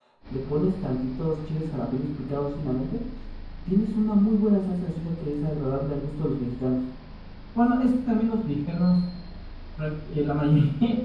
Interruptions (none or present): none